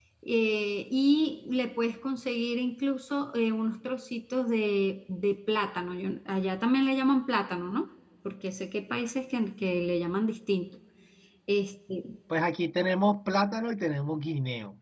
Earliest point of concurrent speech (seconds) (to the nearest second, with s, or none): none